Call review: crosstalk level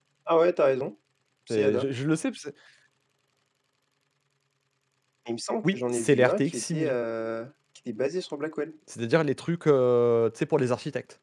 present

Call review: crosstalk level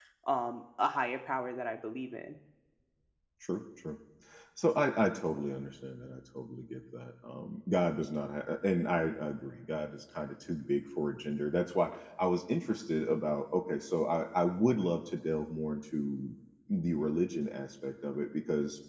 none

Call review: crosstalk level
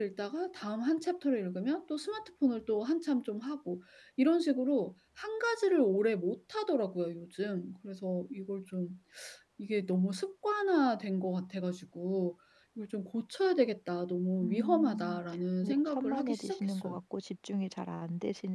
present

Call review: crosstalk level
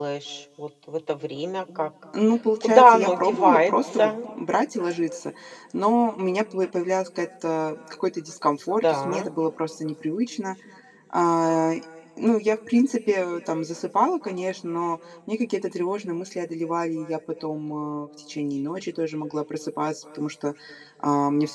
present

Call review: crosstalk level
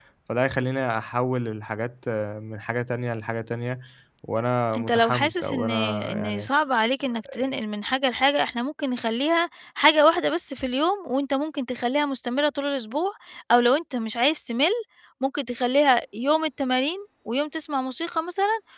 present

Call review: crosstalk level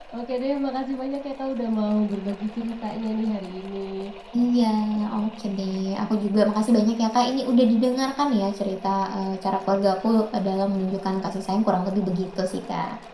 none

